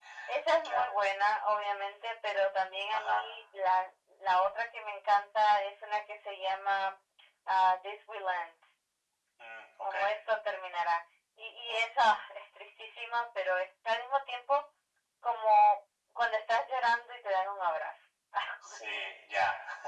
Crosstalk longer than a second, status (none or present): none